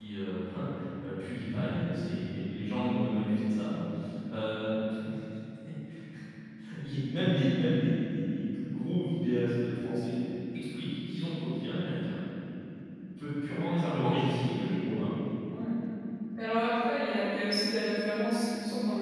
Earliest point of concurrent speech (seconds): none

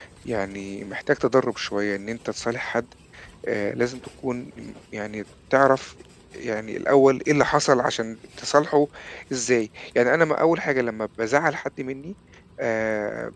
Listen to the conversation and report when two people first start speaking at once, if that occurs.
none

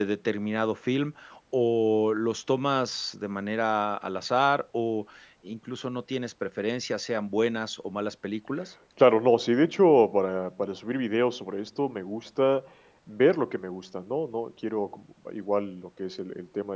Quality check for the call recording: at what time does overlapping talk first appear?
none

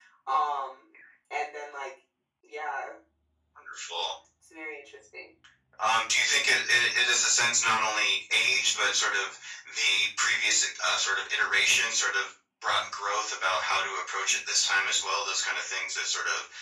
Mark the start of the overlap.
none

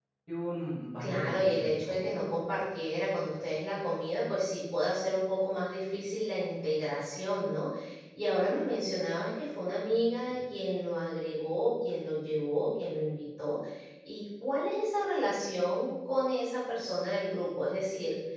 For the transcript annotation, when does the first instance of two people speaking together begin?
1.0 s

